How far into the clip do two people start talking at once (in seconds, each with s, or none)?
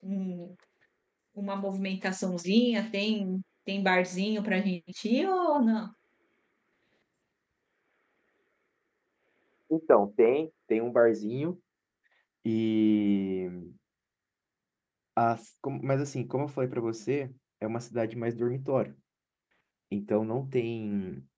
none